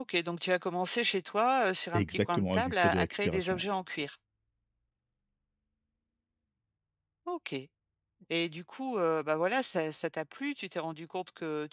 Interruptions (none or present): present